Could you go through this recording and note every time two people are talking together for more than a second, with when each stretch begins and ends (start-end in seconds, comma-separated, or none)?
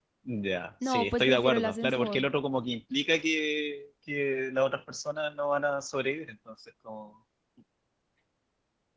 0.8-2.3